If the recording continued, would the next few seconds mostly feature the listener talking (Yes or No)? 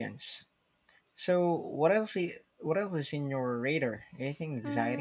Yes